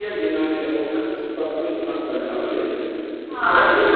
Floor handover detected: Yes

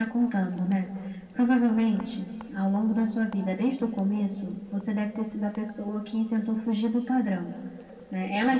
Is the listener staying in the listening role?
Yes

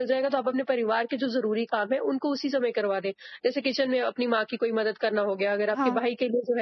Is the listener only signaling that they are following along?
Yes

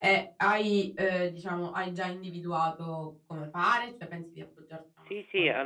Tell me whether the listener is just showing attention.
No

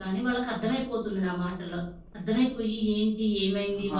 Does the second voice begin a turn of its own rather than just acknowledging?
No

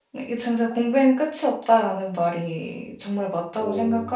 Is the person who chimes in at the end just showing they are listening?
Yes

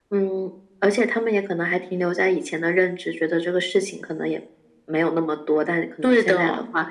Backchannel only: Yes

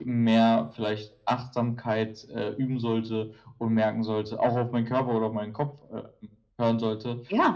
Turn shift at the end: No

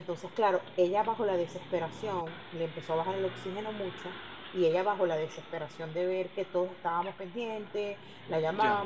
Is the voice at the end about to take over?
No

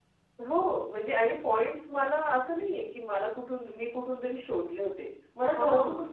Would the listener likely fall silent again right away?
Yes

